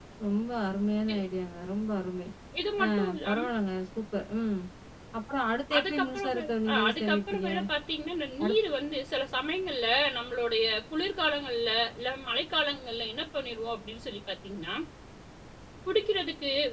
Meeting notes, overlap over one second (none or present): present